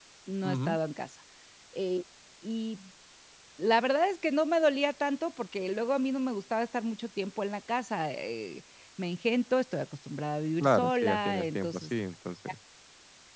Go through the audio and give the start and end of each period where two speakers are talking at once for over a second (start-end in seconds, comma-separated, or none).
10.6-11.9